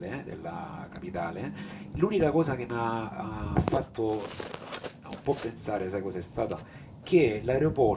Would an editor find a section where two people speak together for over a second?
No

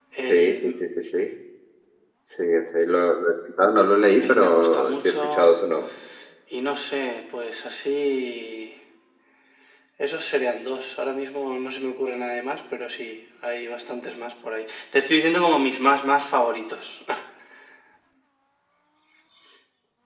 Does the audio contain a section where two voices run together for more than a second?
Yes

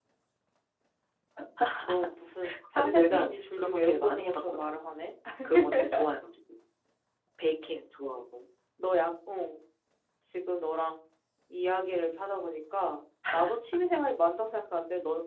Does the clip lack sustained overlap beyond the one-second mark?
No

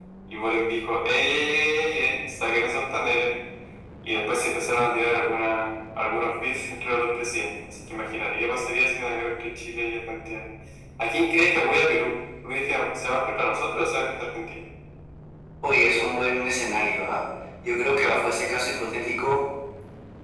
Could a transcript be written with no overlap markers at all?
Yes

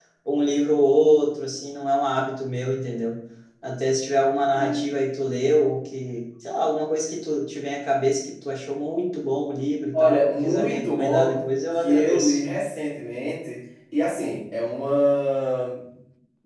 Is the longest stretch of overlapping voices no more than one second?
No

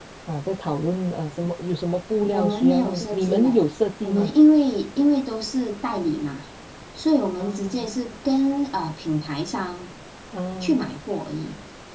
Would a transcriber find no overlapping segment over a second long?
No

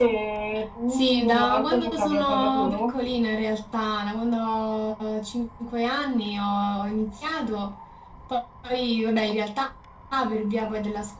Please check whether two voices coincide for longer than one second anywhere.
Yes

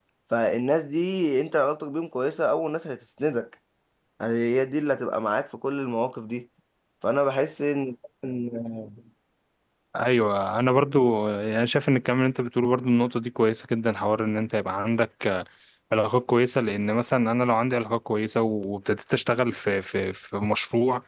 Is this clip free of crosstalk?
Yes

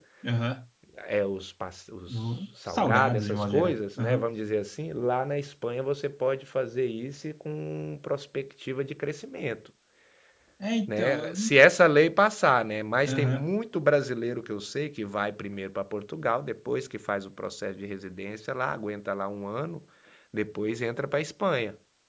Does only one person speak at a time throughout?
No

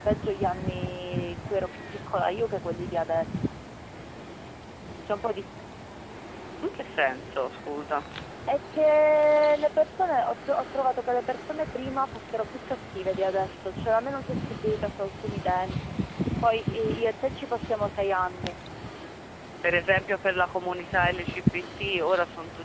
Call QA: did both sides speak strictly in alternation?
Yes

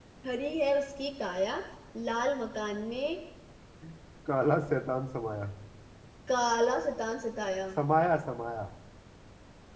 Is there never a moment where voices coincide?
Yes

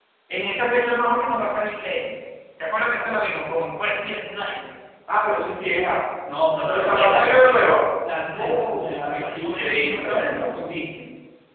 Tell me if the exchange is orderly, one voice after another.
No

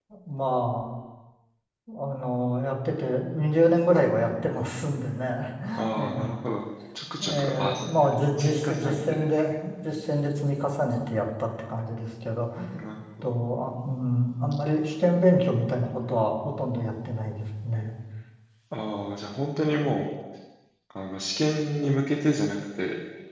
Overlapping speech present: Yes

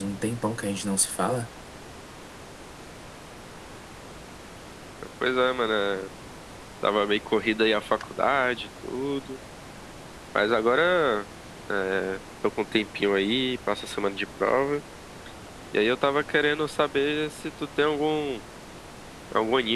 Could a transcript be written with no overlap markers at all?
Yes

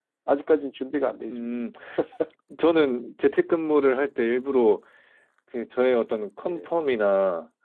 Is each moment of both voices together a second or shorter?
Yes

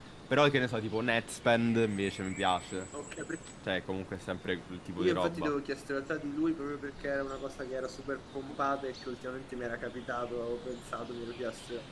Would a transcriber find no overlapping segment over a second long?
Yes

